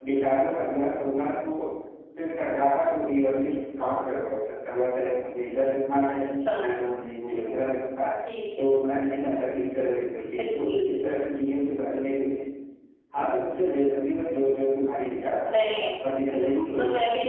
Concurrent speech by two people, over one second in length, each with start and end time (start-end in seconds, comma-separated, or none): none